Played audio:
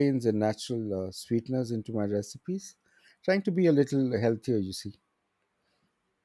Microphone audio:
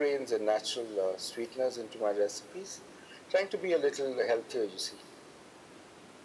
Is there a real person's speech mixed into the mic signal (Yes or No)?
No